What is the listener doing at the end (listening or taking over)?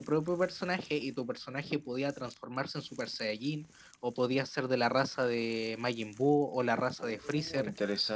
taking over